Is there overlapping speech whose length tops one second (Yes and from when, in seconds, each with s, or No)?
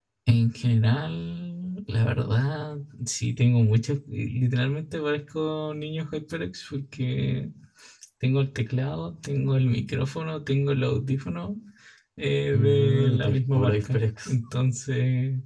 Yes, from 12.5 s